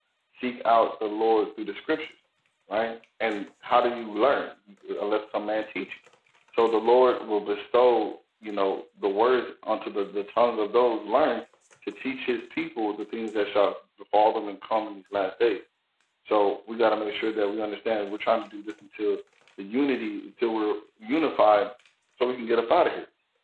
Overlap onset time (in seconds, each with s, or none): none